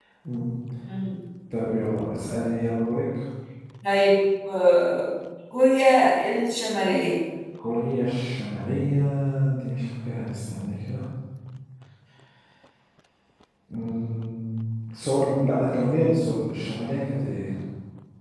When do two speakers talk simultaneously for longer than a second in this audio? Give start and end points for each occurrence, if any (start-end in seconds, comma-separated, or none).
none